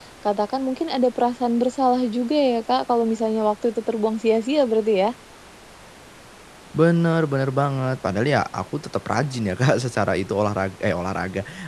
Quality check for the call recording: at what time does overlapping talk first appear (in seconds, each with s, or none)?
none